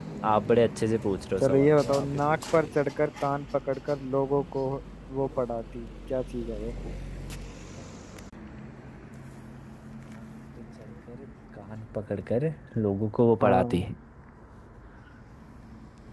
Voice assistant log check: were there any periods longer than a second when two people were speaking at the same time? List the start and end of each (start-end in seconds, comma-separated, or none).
1.4-2.7